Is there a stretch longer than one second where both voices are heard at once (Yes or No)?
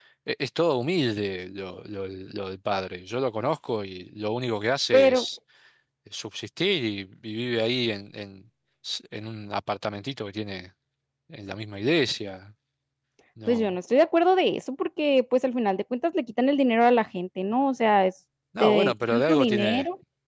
Yes